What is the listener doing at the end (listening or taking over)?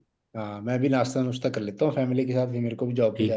taking over